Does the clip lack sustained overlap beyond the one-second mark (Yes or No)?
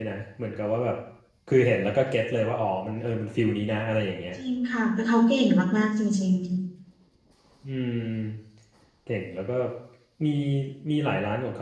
Yes